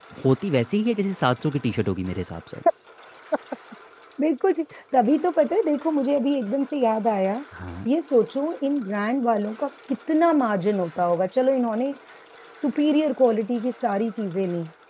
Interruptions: none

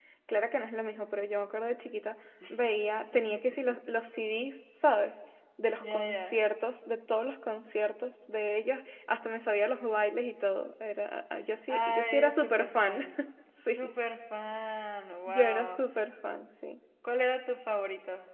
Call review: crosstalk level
present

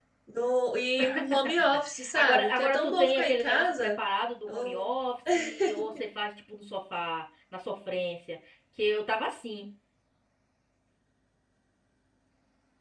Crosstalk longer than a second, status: present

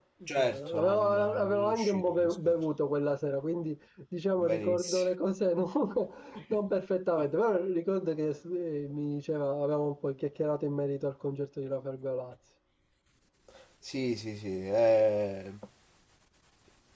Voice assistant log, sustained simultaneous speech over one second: present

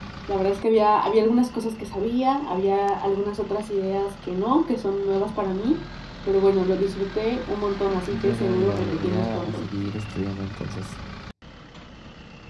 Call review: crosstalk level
present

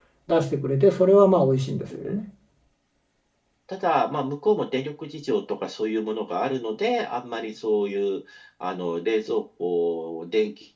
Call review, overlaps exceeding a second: none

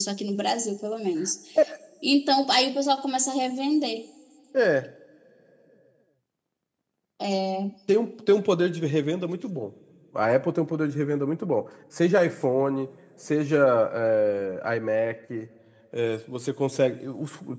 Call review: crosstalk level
none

